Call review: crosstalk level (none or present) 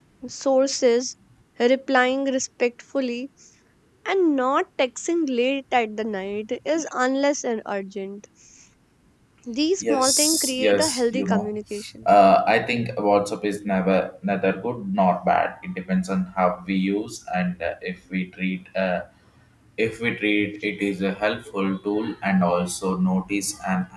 present